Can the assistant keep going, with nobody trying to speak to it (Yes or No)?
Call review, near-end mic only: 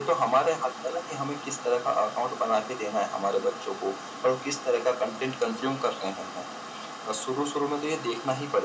Yes